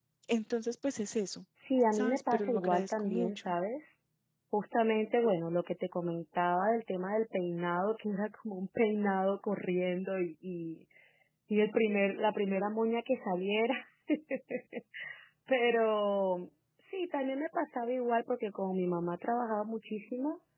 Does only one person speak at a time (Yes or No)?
No